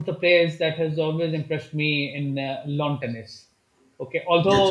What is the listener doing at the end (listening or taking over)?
listening